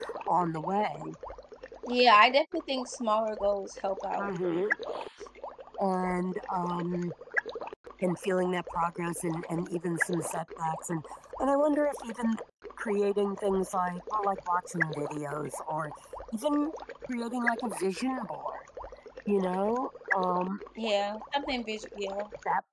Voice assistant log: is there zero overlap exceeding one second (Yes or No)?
Yes